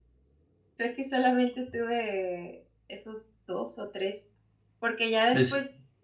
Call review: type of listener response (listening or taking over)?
listening